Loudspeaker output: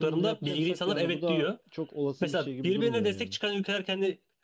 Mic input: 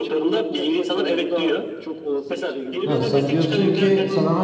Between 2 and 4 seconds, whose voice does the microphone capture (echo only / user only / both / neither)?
both